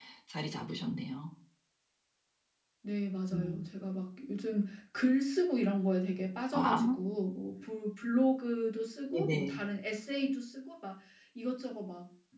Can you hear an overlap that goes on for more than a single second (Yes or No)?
No